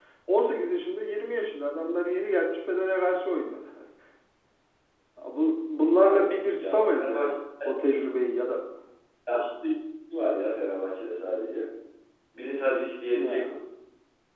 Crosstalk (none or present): present